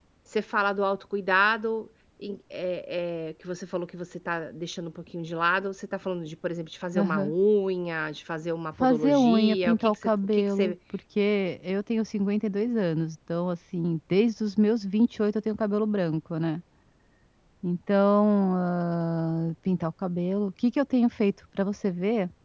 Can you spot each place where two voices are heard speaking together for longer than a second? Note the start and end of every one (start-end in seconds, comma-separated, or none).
8.8-10.7